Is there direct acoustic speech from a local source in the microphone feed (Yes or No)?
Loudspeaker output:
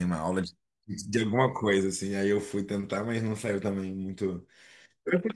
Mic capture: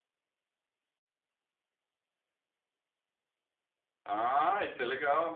Yes